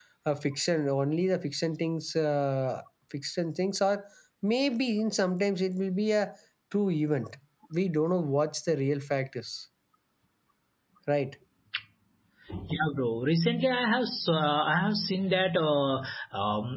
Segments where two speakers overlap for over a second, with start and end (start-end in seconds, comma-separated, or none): none